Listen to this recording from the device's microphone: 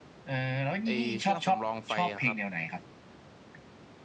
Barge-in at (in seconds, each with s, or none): 0.8 s